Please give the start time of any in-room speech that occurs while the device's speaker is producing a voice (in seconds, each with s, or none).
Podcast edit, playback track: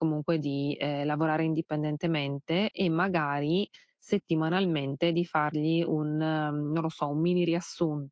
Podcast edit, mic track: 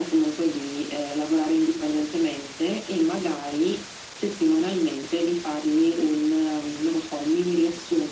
none